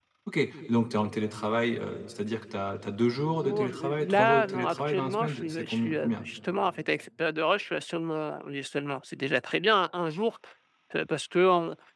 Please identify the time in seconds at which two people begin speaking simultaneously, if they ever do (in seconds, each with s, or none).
3.4 s